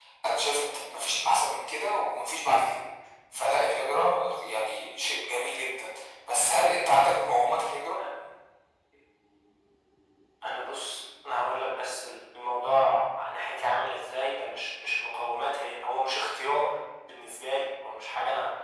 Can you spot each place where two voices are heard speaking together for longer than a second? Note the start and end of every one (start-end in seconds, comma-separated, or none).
none